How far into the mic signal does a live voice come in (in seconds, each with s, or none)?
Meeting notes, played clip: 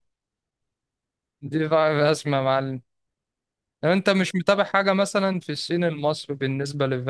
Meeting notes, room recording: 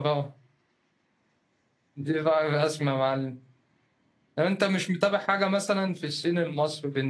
none